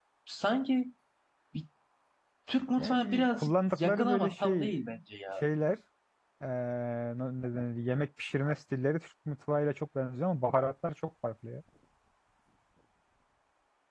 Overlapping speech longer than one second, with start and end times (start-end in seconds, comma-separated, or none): 2.8-4.7